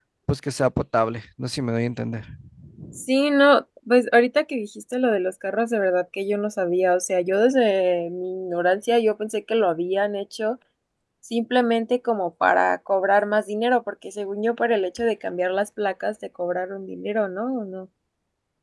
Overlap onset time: none

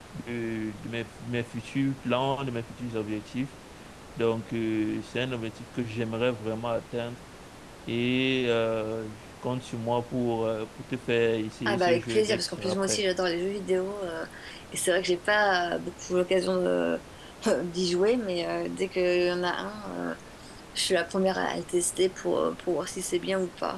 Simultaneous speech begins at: 11.6 s

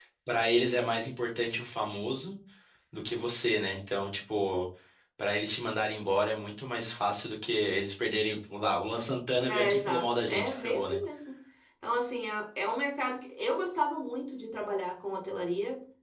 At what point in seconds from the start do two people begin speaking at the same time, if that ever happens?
9.5 s

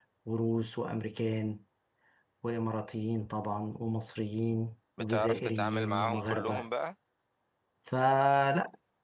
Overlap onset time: 5.0 s

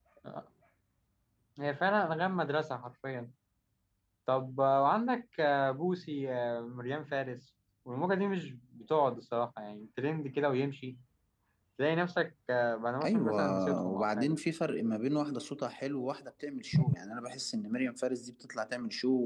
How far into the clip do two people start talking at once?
13.0 s

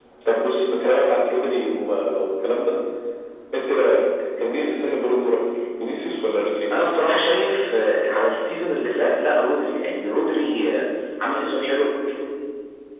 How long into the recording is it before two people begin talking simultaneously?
none

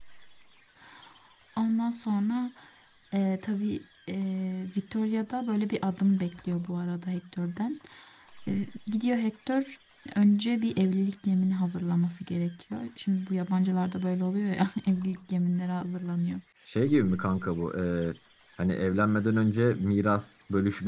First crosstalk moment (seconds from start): none

